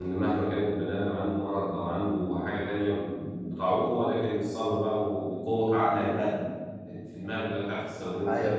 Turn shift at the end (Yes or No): No